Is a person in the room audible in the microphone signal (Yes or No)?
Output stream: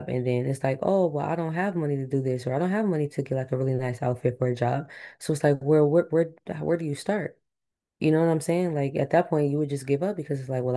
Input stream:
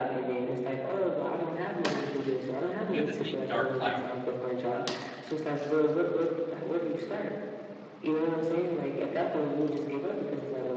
Yes